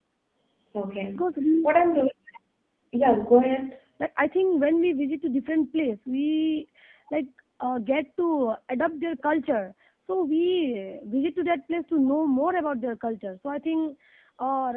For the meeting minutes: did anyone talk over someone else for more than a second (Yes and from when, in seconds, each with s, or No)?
No